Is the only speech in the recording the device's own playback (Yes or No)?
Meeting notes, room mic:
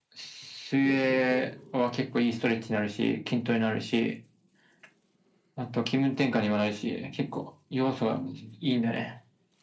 No